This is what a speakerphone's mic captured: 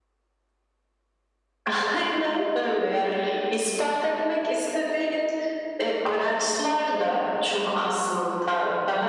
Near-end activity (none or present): none